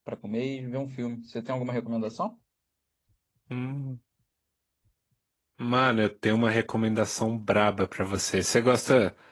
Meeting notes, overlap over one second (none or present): none